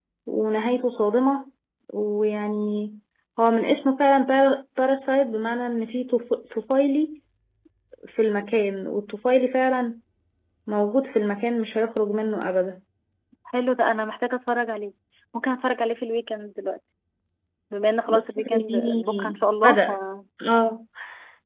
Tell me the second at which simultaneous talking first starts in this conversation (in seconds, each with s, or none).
18.1 s